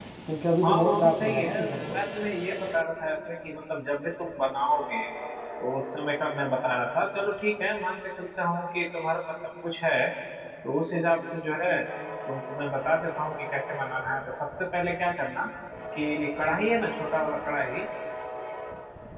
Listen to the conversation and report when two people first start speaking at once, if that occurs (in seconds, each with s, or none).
0.6 s